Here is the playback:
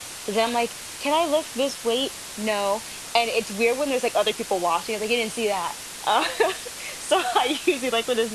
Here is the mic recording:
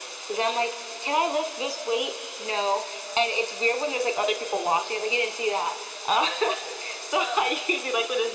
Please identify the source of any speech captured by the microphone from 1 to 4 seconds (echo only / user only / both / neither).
echo only